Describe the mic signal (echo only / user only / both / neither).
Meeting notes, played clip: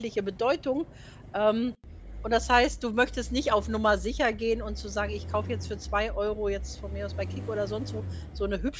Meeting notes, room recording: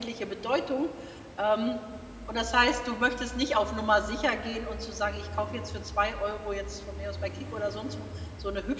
echo only